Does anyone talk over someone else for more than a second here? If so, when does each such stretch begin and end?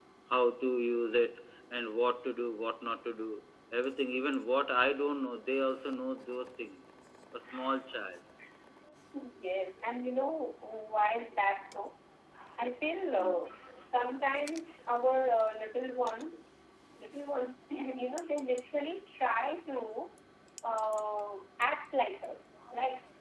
none

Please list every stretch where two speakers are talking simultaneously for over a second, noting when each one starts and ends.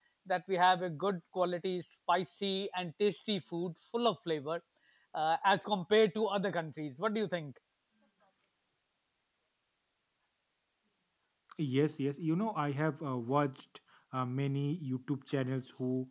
none

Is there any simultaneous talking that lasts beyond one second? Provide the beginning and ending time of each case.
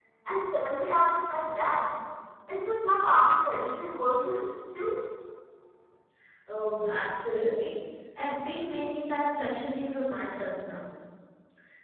none

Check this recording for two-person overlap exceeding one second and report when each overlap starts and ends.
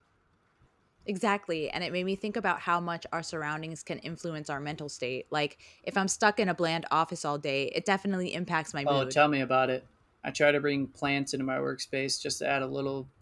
none

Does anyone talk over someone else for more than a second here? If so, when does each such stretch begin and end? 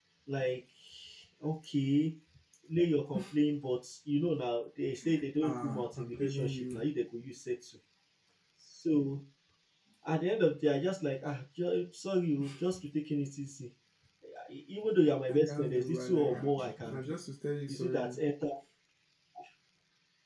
5.4-6.8, 15.3-17.1

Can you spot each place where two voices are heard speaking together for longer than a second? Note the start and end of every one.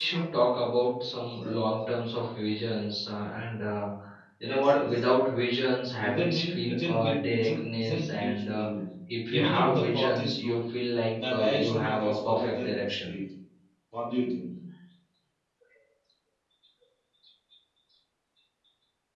6.0-8.7, 9.2-10.6, 11.2-13.1

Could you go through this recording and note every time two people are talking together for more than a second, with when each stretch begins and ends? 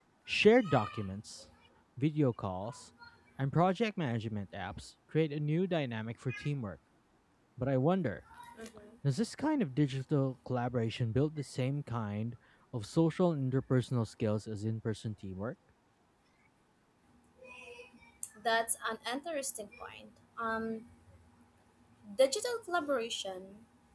none

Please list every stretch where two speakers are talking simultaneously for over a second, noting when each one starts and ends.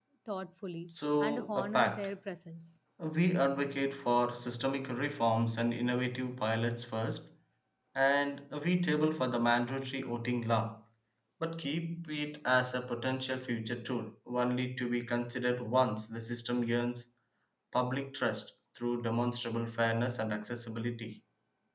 0.9-2.1

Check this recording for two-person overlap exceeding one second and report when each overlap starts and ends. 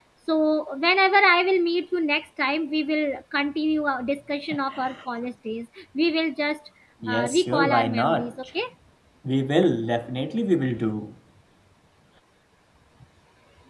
7.1-8.3

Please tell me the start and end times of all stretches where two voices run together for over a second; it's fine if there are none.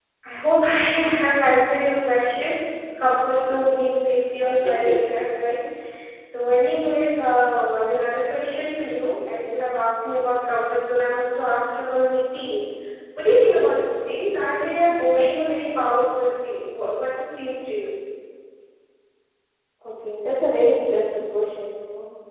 none

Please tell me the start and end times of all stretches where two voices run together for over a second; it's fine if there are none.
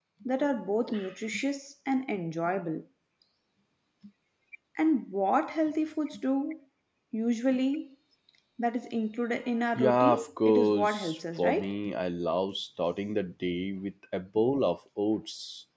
9.8-11.7

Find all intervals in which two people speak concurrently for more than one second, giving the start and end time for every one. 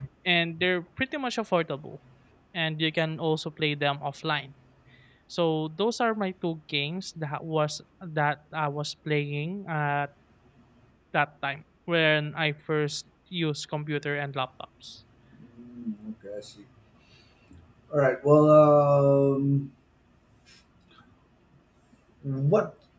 none

